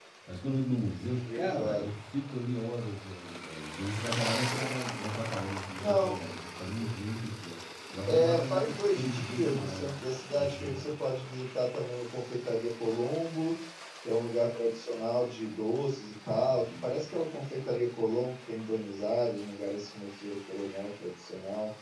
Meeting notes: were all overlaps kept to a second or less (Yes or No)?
No